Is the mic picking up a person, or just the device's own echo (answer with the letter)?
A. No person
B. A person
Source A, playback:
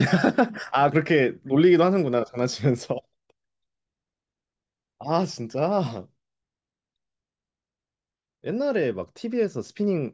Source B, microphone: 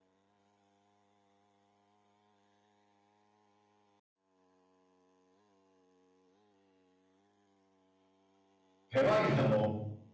B